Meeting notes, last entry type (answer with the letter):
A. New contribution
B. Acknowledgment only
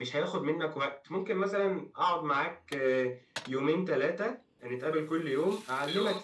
B